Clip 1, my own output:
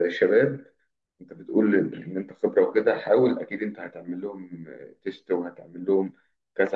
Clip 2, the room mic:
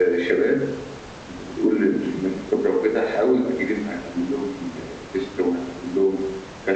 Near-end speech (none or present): none